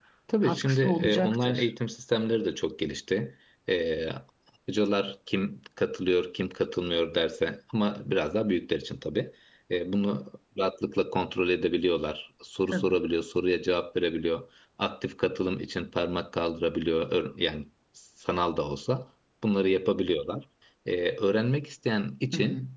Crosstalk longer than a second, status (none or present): present